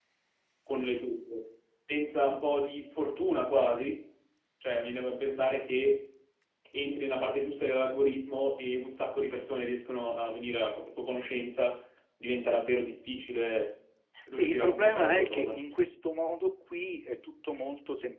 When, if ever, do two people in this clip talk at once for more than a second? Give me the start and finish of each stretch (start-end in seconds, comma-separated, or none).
14.3-15.6